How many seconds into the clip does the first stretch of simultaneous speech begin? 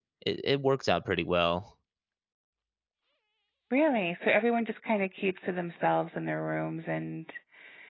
none

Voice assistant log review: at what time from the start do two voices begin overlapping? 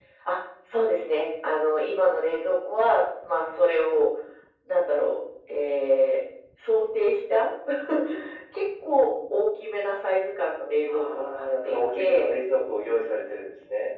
10.9 s

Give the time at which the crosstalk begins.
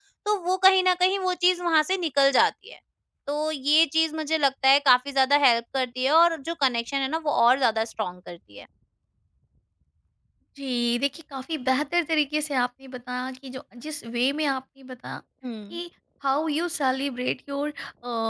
none

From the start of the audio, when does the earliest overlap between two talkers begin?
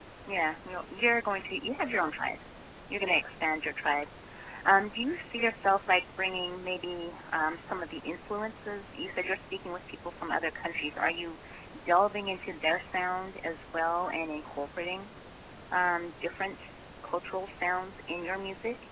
none

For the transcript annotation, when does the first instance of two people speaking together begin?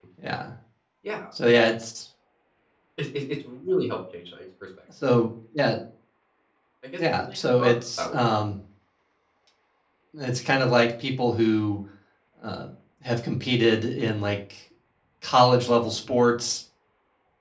7.0 s

